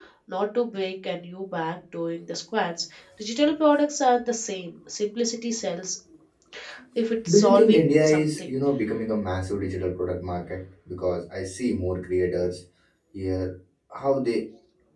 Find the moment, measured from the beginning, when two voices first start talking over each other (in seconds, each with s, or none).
7.3 s